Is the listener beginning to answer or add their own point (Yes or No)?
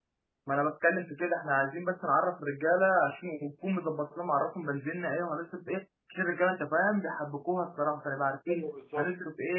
No